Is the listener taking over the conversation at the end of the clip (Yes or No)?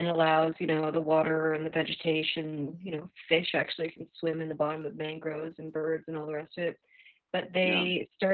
No